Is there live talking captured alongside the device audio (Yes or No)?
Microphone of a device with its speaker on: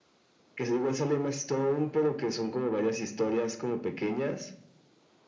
No